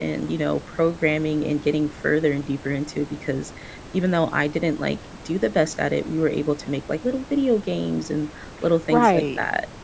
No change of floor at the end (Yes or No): No